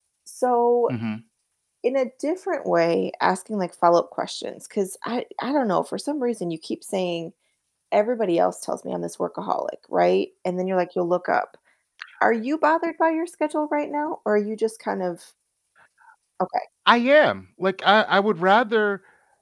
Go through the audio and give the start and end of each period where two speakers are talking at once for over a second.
none

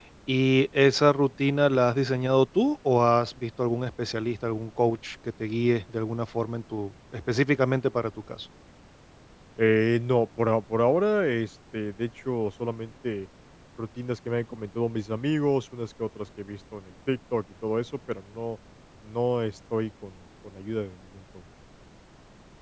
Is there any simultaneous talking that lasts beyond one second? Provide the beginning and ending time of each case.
none

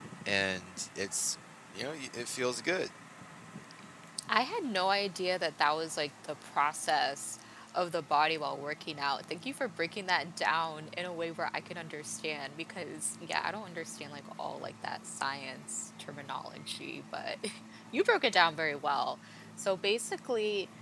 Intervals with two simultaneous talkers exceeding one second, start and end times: none

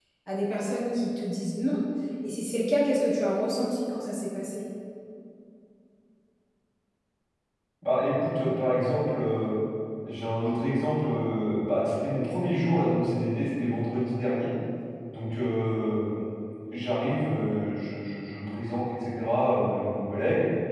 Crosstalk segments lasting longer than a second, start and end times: none

